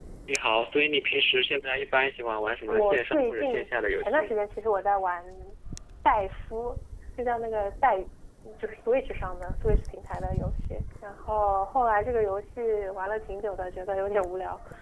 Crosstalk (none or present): present